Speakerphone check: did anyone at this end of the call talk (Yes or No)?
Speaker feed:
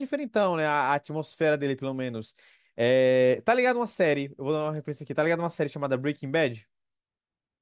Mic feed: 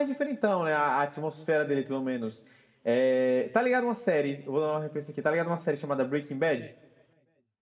No